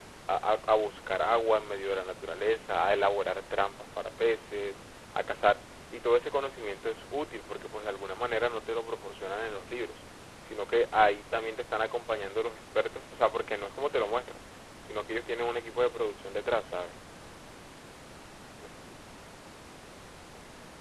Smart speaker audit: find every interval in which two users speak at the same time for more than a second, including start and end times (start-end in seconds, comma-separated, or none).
none